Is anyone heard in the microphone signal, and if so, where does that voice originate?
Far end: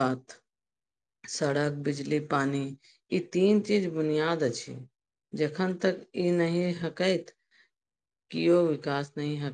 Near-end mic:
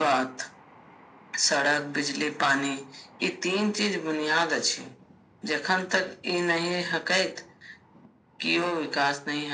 echo only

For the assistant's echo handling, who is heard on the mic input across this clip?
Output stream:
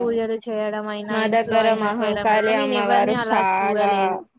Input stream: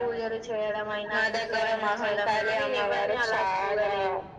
echo only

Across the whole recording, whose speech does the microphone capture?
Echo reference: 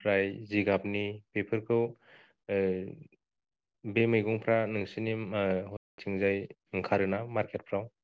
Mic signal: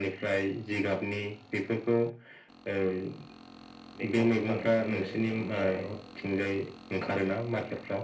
both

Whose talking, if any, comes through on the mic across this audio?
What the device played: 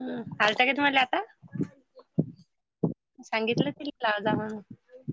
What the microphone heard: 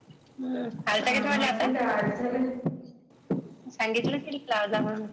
both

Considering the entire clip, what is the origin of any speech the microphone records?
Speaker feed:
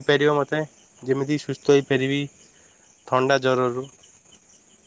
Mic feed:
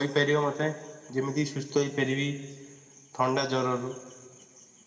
echo only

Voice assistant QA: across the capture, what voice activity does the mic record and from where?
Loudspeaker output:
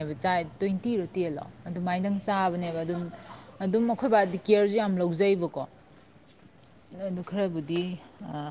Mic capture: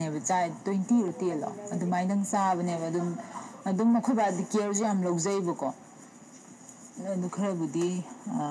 both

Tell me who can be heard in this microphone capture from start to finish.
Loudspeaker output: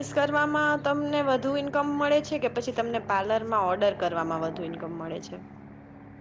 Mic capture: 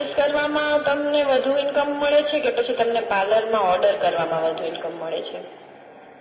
echo only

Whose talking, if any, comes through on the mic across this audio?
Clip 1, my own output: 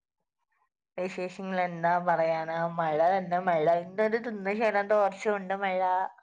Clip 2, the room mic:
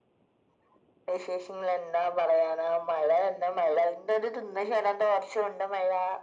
echo only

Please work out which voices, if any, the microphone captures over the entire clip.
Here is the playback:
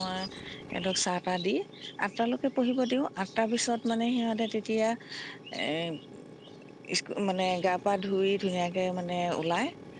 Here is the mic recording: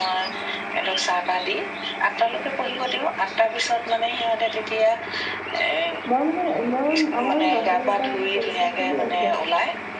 both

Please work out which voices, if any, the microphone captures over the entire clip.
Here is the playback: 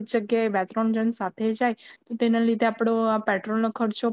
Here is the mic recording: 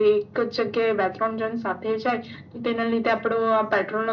echo only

